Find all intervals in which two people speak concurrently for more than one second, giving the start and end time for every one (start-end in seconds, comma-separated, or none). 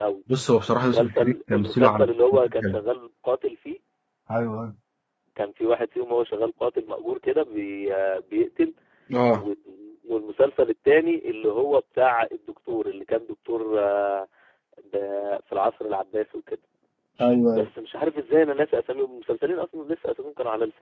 0.7-2.1